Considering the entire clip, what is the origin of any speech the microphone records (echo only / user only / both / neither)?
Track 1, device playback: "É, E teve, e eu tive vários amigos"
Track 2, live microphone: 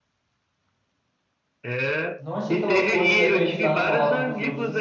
both